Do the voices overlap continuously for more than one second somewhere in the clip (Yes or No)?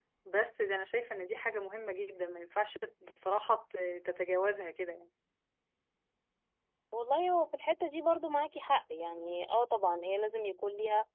No